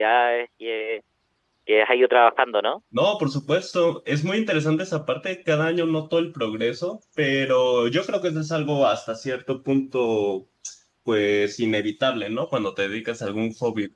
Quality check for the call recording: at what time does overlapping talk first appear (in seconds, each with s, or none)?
none